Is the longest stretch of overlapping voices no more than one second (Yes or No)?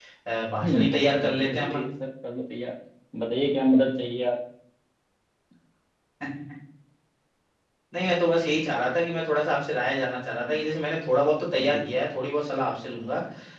No